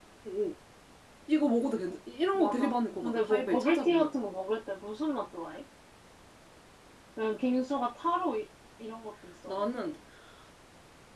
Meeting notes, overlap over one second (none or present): present